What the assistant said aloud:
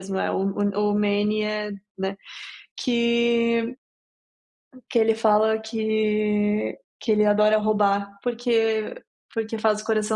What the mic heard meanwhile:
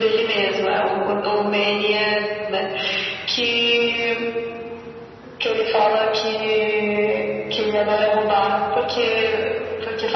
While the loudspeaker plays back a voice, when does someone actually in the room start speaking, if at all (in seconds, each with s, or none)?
none